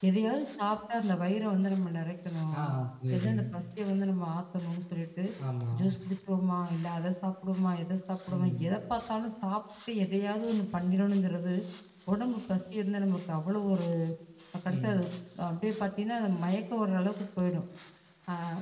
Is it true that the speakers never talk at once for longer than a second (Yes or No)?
Yes